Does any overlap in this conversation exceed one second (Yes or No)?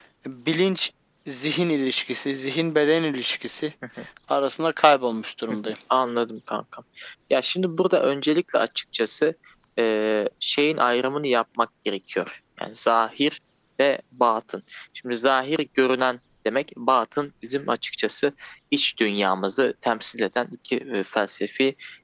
No